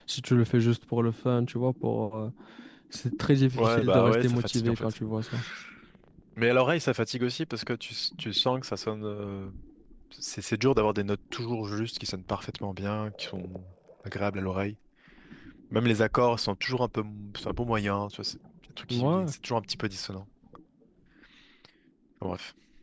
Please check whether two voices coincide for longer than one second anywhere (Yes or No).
Yes